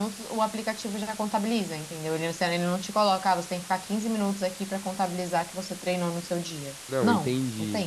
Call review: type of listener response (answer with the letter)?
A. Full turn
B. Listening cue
A